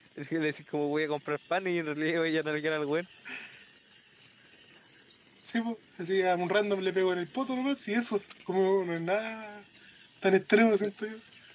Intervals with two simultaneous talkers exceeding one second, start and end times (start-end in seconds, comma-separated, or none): none